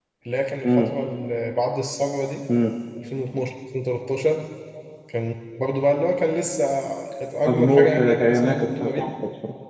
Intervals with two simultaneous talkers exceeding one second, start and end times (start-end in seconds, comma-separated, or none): 7.5-9.1